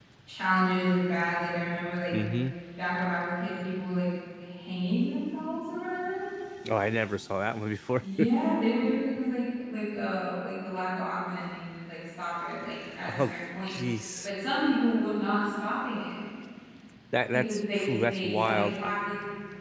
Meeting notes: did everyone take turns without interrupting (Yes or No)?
No